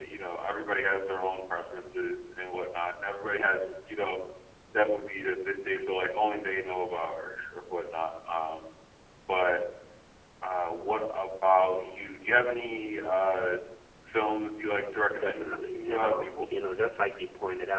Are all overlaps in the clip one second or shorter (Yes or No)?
No